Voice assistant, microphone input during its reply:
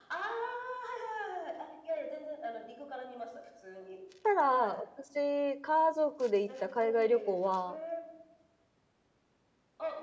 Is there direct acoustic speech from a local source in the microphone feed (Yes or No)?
Yes